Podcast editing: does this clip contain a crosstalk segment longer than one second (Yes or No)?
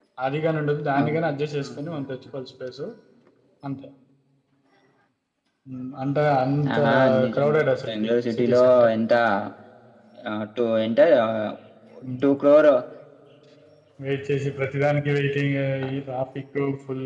Yes